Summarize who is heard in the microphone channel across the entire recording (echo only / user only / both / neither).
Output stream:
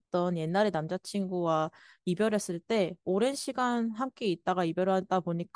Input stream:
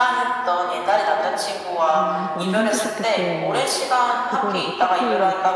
both